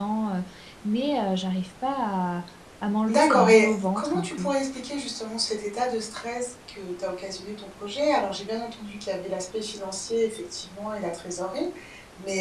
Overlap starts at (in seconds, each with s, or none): 3.1 s